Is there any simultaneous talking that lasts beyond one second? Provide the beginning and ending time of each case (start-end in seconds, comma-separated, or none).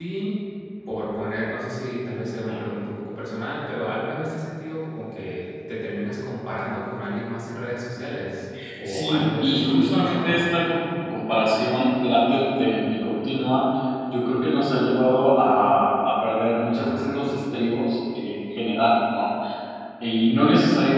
8.8-10.4